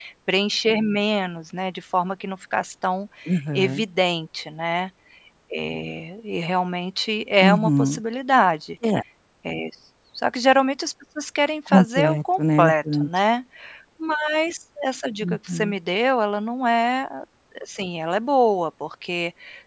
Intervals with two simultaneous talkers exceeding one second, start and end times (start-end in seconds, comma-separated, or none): 11.7-13.1